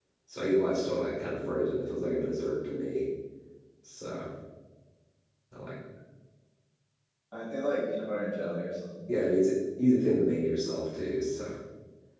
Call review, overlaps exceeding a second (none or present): none